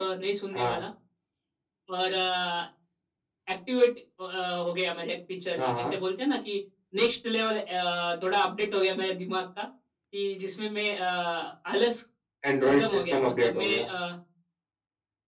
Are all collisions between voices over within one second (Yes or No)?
No